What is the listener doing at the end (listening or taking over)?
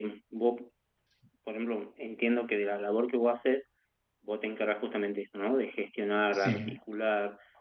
listening